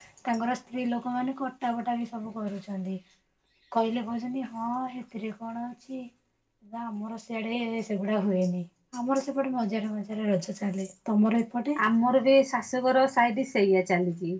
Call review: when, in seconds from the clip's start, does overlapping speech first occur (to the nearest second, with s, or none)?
none